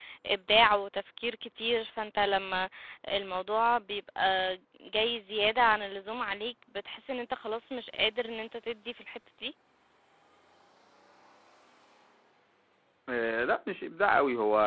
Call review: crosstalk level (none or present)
none